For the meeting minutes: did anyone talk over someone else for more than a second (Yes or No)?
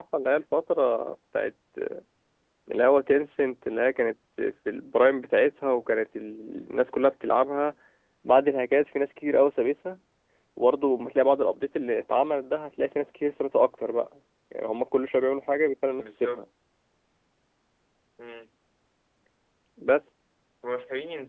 No